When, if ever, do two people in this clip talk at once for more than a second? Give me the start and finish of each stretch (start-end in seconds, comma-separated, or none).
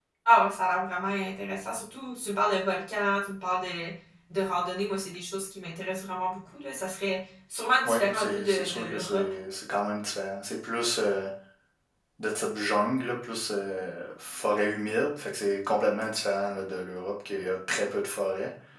7.8-9.2